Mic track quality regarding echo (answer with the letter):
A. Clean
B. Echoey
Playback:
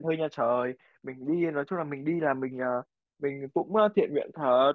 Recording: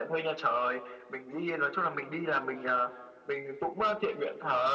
B